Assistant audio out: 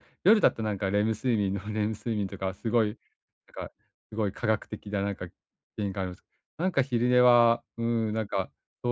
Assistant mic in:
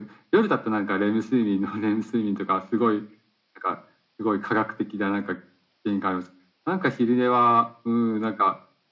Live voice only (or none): none